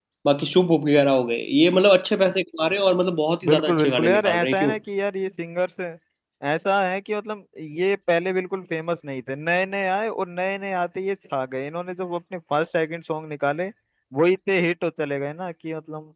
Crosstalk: present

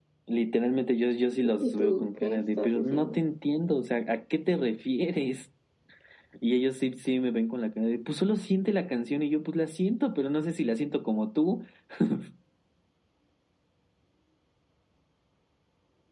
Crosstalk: present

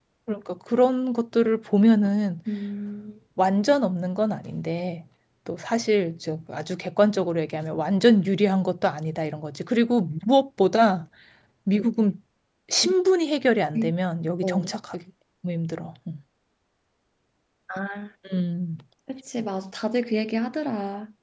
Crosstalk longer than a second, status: none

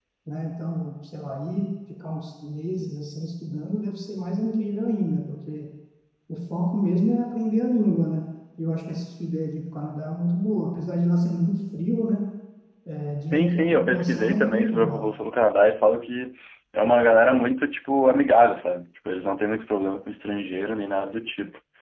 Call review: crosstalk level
present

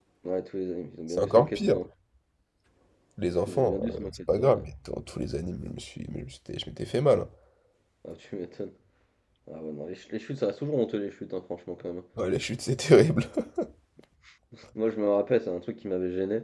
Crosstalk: present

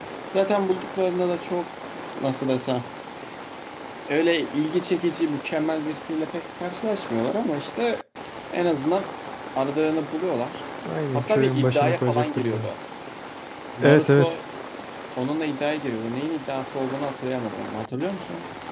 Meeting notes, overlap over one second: present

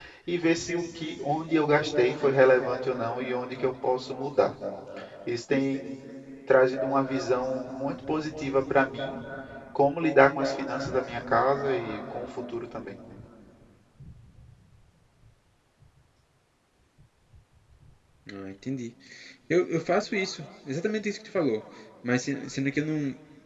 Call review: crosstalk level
none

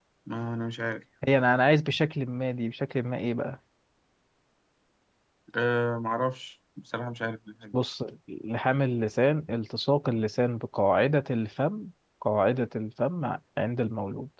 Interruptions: none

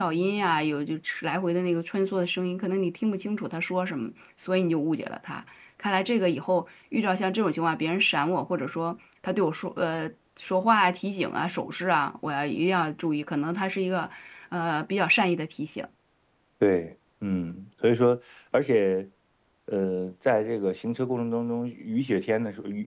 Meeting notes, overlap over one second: none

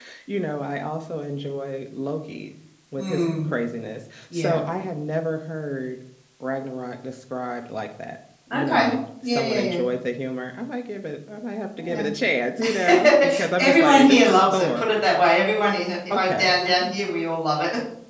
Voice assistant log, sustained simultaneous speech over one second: present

